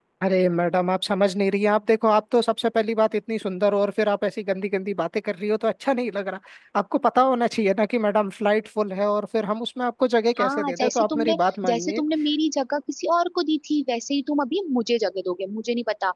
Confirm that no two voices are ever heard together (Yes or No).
No